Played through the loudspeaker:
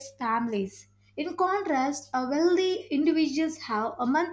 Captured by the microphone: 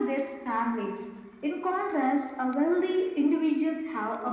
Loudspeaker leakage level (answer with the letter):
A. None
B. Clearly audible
B